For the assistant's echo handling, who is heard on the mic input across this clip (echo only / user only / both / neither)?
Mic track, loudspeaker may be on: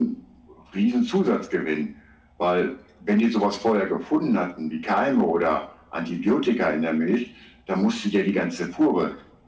echo only